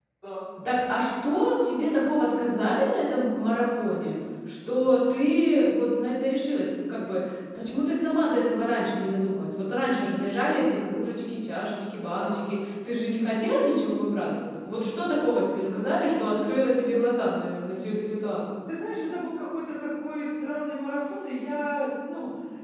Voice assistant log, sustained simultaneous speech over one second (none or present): none